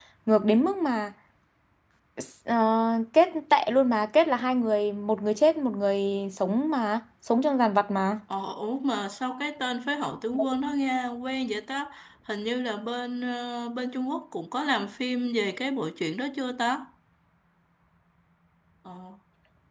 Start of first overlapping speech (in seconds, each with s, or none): none